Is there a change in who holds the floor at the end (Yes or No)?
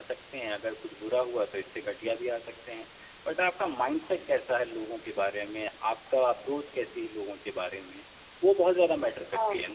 Yes